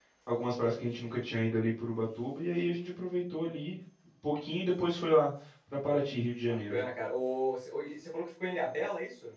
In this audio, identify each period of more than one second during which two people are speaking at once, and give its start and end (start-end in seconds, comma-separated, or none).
none